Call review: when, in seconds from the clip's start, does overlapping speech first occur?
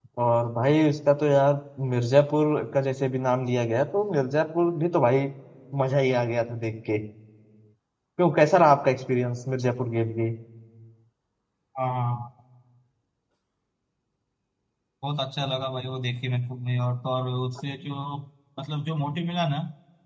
none

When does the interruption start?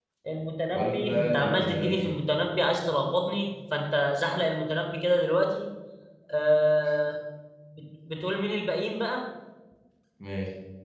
0.7 s

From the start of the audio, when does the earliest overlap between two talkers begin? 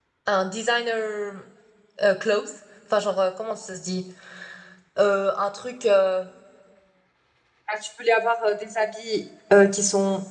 none

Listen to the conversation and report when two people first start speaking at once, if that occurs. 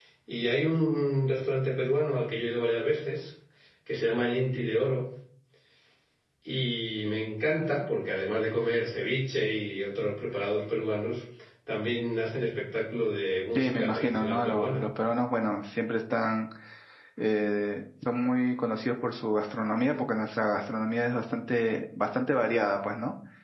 13.6 s

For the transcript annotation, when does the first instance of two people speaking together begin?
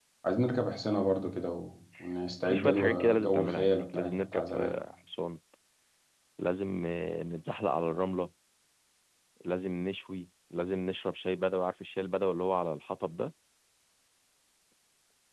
2.5 s

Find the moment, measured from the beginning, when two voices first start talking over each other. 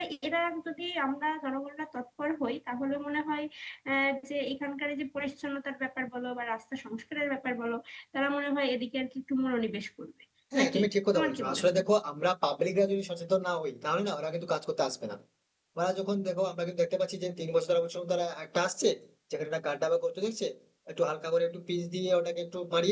10.6 s

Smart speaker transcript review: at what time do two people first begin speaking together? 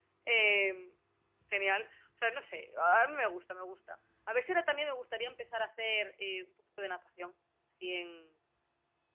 none

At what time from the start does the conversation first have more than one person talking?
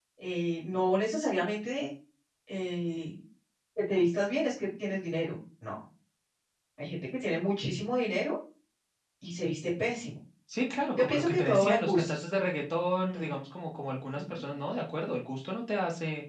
10.9 s

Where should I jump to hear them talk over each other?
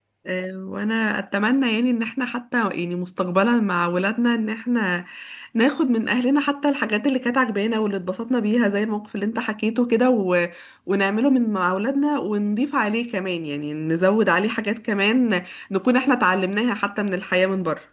none

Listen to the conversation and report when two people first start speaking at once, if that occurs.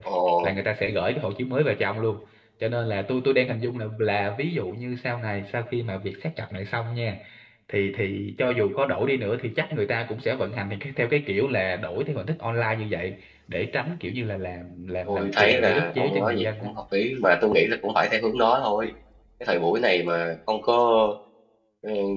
15.0 s

